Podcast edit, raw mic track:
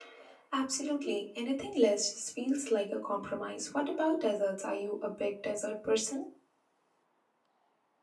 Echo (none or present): none